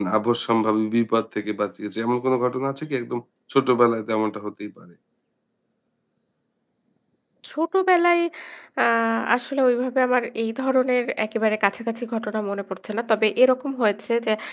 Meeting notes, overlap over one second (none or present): none